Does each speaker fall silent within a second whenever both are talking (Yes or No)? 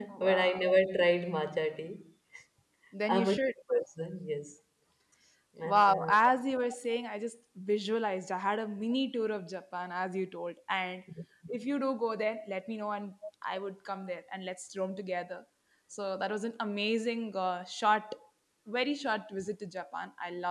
Yes